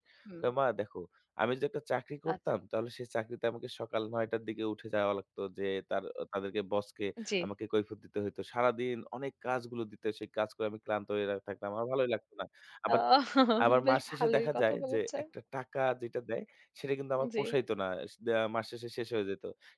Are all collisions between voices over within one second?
No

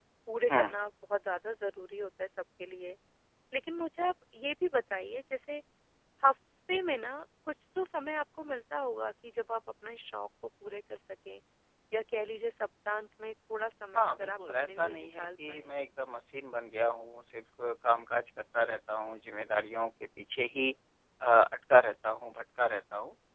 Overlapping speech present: Yes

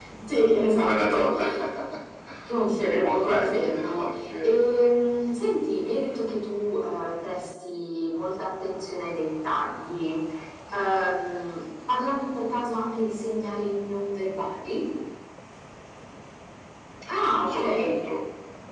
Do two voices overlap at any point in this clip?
Yes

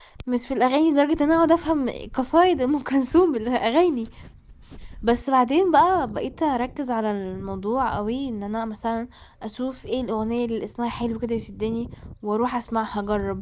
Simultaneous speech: No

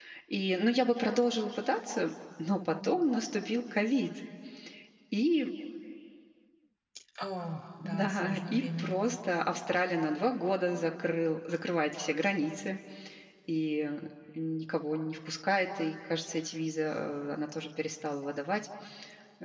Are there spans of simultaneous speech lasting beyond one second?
Yes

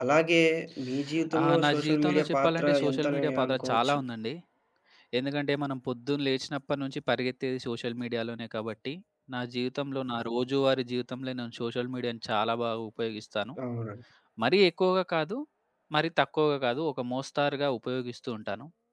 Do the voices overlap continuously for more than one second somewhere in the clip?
Yes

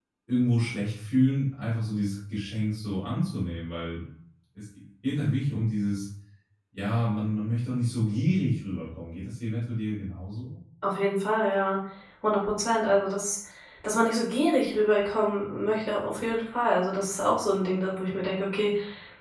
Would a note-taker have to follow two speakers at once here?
No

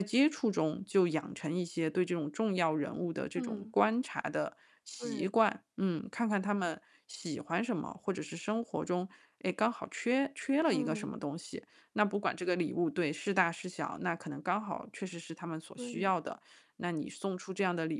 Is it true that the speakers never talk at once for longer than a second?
Yes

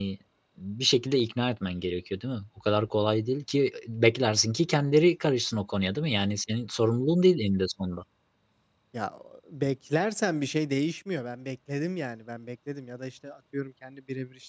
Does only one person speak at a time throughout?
Yes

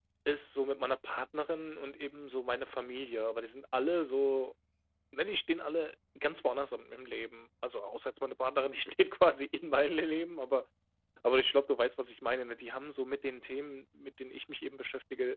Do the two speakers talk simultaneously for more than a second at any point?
No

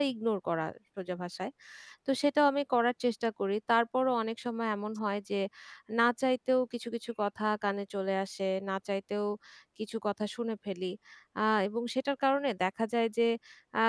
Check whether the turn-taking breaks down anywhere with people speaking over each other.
No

